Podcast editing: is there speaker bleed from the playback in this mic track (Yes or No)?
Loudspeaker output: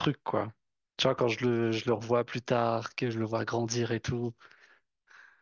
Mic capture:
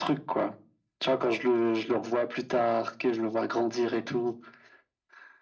Yes